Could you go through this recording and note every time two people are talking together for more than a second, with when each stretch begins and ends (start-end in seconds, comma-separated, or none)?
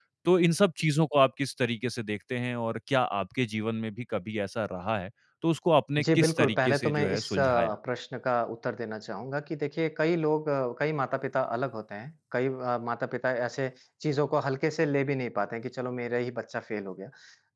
6.0-7.8